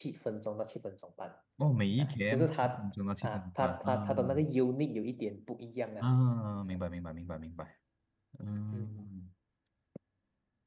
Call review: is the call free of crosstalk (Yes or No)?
No